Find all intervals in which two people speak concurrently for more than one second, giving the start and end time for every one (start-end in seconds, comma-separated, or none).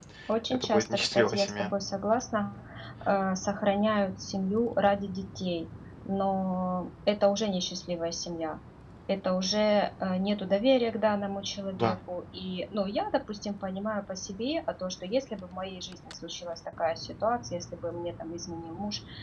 0.5-1.7